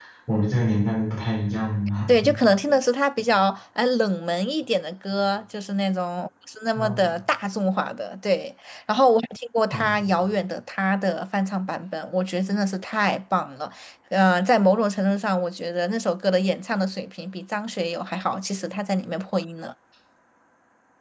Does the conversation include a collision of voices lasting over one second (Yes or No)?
No